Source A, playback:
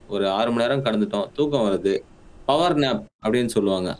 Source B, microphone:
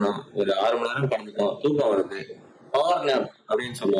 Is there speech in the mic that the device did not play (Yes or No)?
No